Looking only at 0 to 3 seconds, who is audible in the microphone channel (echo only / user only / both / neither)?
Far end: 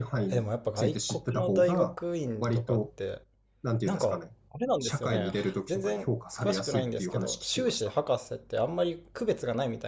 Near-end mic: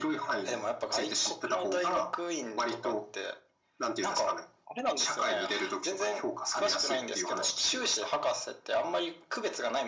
echo only